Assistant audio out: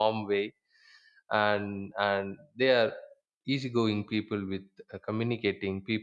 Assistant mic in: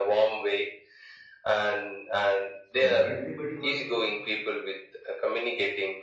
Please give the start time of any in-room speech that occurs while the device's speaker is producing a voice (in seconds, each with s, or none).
2.6 s